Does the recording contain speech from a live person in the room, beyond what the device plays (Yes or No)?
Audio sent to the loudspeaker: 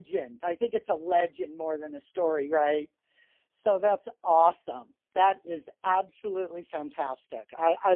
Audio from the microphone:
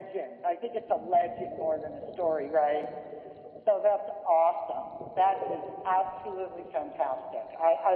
No